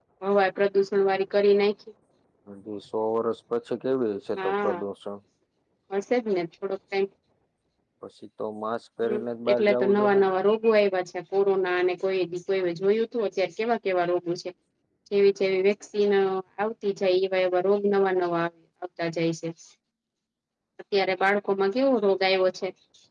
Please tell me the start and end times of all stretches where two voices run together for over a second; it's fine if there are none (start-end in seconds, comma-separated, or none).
9.0-10.3